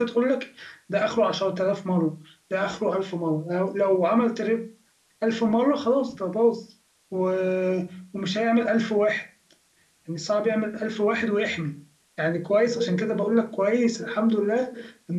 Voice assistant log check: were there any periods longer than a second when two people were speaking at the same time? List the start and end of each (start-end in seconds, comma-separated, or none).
none